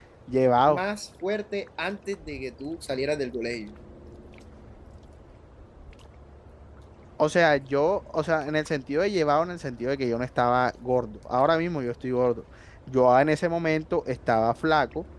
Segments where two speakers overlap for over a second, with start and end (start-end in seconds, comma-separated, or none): none